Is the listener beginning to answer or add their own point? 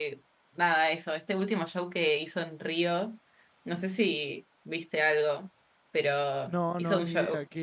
Yes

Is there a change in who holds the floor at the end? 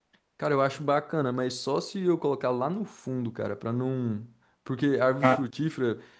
No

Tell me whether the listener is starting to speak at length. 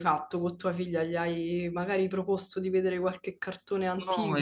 Yes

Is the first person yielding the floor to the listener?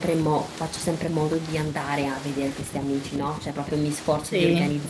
No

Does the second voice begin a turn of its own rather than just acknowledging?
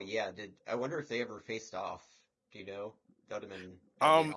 Yes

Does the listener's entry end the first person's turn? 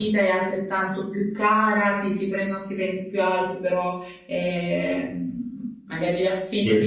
No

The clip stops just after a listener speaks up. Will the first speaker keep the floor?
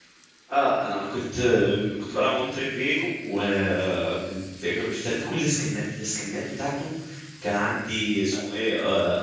Yes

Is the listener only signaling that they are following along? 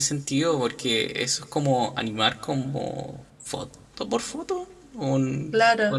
No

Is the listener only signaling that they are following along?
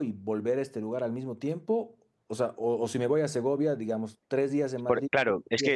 No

